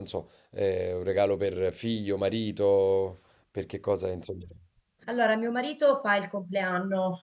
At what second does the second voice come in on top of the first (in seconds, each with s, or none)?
none